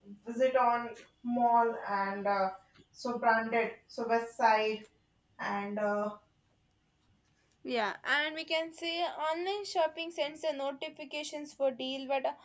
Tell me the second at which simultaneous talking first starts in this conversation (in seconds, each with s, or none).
none